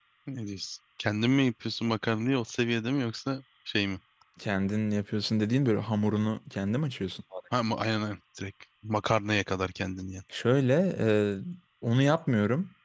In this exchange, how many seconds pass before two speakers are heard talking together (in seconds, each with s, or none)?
none